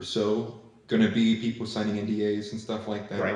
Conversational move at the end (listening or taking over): listening